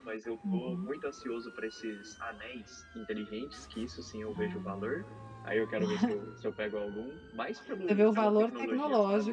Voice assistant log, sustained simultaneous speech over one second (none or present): present